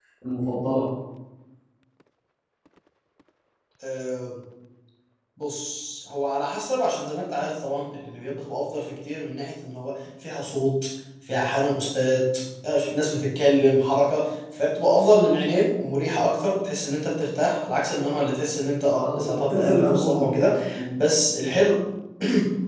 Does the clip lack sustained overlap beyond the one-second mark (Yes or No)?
No